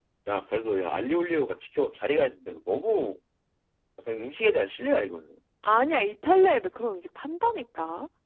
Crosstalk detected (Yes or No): No